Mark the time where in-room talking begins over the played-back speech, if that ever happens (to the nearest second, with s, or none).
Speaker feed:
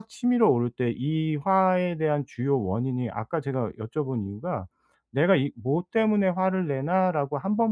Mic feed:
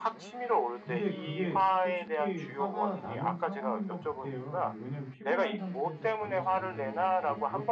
1 s